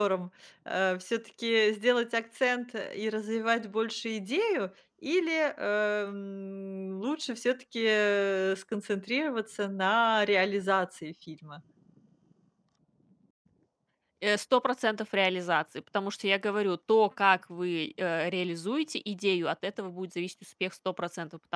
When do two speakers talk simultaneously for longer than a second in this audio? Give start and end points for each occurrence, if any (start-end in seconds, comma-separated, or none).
none